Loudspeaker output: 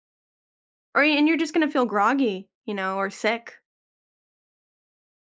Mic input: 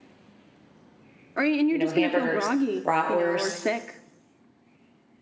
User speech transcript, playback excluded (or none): you know, hamburgers, bratwurst,